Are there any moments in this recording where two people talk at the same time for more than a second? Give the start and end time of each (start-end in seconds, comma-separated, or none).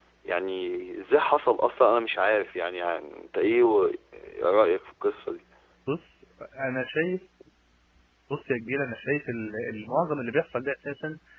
none